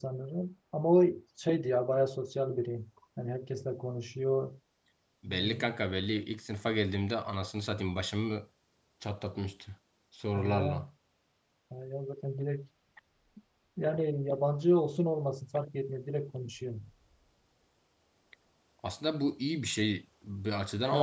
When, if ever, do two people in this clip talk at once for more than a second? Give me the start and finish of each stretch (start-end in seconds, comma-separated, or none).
none